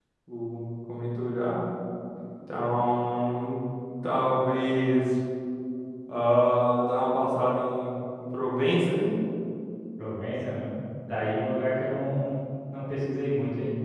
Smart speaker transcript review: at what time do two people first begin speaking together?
none

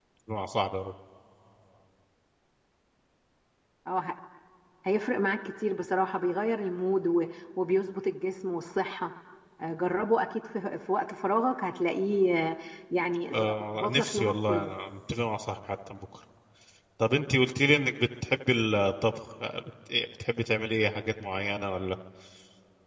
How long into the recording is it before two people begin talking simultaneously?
13.2 s

